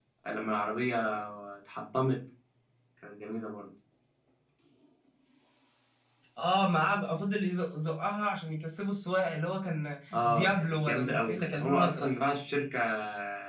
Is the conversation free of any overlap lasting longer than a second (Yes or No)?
No